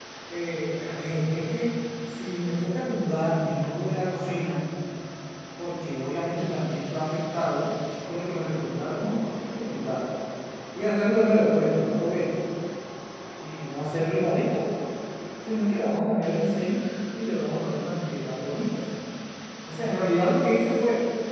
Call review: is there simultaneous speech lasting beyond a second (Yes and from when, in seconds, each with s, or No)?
No